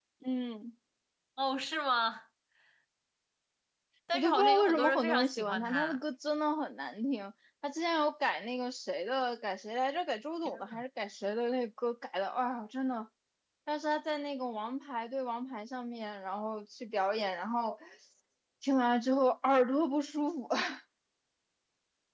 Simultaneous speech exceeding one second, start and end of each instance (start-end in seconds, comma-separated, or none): 4.1-6.0